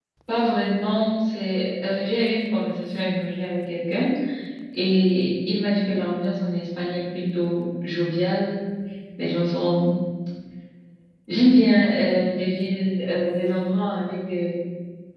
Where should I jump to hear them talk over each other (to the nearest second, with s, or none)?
none